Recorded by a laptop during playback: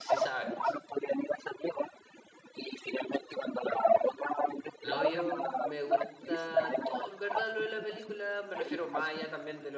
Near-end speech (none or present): present